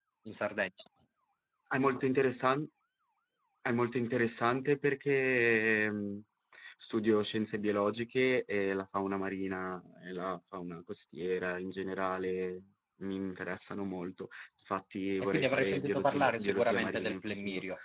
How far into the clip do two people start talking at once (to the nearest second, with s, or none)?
15 s